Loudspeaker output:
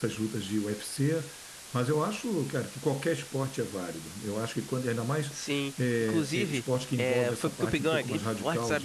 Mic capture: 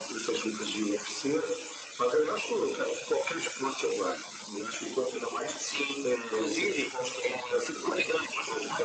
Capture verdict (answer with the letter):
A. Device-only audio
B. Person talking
A